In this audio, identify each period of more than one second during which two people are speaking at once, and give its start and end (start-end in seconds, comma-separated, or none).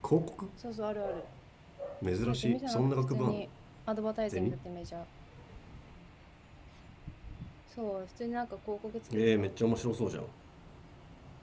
2.2-3.4